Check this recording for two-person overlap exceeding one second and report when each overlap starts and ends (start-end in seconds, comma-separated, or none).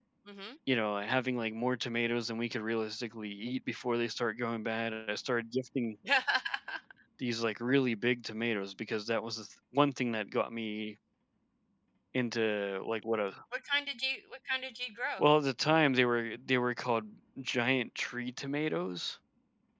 none